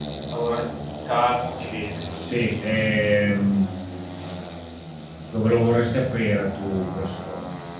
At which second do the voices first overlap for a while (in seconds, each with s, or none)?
none